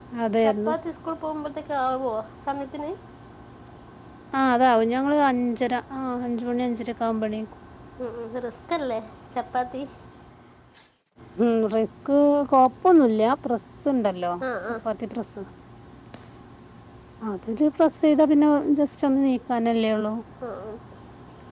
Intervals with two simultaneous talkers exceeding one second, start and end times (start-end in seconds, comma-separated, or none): none